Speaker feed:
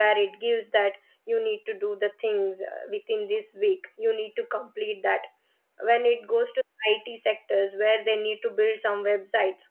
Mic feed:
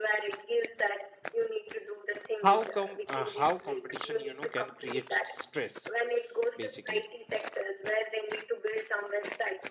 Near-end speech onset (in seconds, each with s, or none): 2.4 s